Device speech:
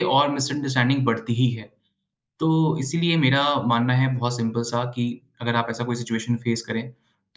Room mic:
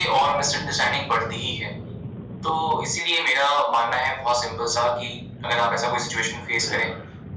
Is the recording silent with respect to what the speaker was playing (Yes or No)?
No